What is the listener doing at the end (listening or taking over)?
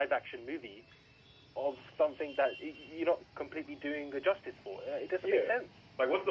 taking over